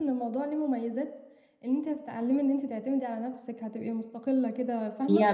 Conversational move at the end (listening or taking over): taking over